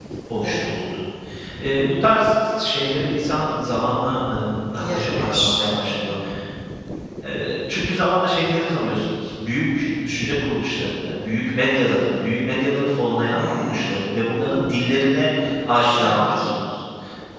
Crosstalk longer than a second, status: present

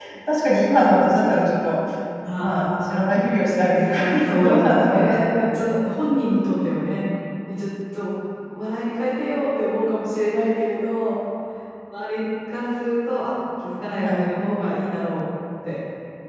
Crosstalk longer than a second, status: present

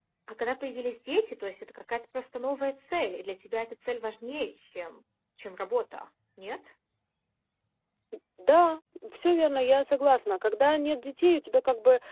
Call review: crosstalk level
none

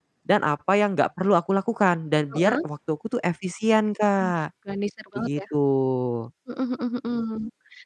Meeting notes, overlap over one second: none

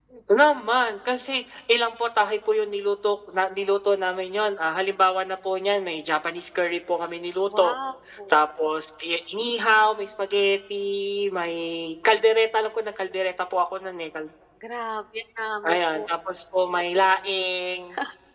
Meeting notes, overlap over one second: none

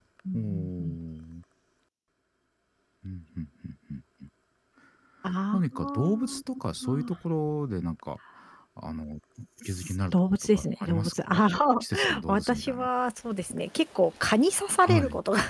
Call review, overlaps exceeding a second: present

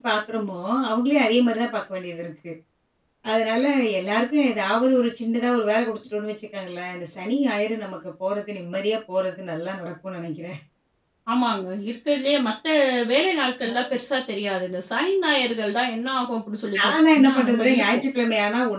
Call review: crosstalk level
present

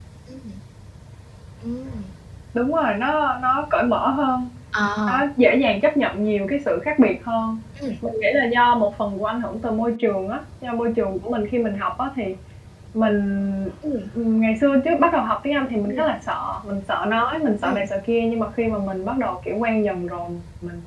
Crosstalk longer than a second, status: none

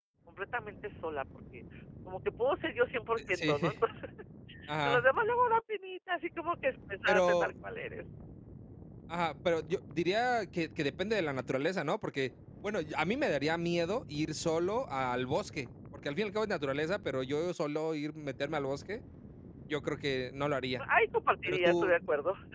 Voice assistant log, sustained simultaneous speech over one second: none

